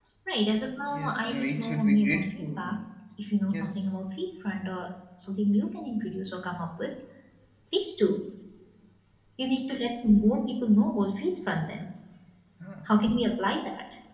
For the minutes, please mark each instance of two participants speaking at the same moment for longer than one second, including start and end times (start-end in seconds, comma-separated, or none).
0.9-2.8